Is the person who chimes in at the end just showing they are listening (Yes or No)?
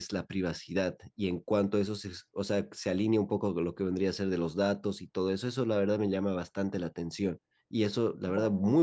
Yes